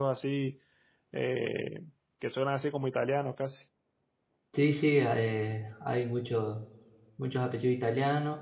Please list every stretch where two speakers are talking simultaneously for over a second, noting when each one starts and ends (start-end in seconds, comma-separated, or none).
none